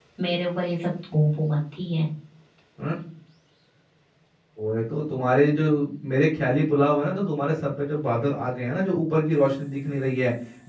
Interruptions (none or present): none